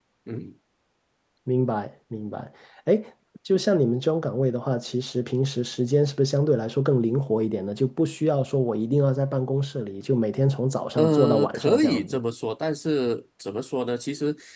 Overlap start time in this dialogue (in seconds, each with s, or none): 11.0 s